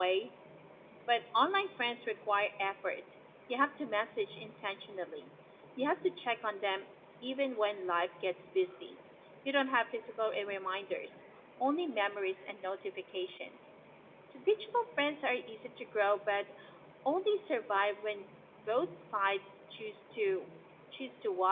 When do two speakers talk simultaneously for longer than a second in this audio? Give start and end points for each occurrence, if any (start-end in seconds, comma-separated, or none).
none